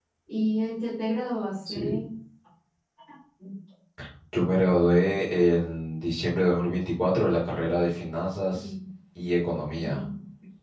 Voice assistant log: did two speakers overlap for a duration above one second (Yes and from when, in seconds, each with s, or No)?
No